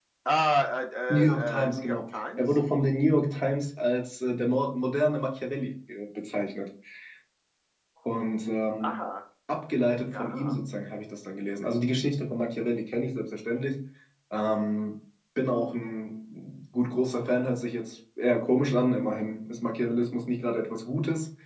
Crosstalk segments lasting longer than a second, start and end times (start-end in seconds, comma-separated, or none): 1.1-2.5